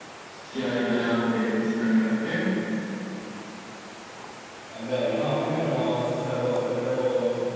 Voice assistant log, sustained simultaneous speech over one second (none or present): none